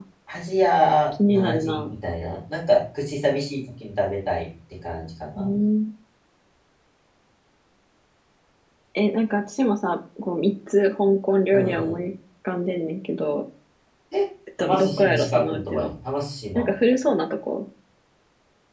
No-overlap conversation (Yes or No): No